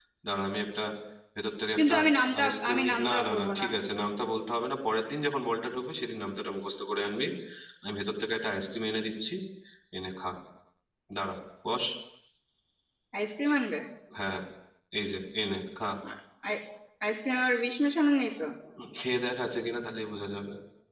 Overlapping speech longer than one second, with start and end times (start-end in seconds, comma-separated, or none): 2.4-3.6